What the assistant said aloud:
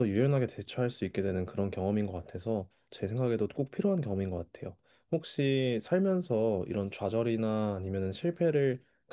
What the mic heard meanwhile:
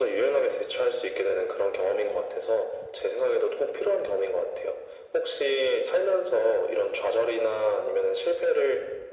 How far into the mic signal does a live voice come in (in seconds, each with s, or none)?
none